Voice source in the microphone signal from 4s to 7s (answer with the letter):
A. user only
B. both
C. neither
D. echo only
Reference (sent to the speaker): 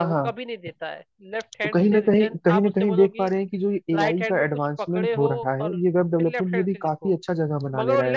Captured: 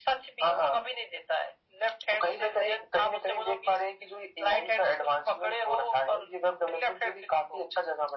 D